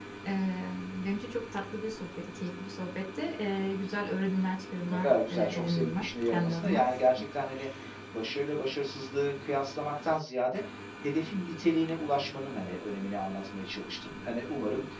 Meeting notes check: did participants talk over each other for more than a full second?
Yes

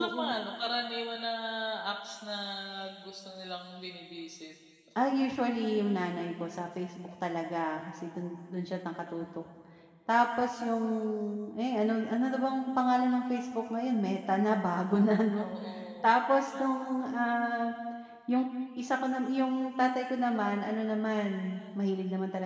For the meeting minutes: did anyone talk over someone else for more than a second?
No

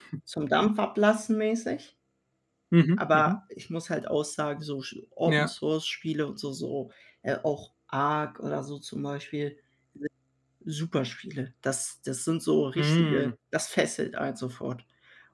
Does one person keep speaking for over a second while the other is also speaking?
No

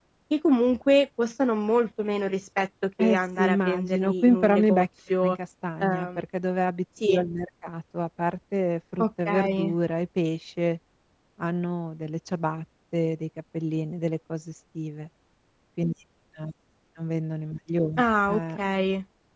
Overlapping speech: Yes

